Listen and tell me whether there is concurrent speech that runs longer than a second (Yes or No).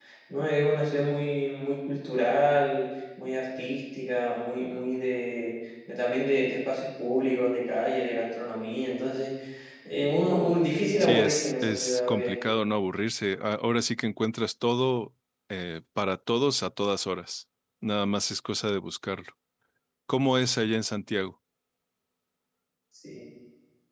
Yes